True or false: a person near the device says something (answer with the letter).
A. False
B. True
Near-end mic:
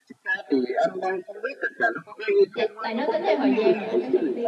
B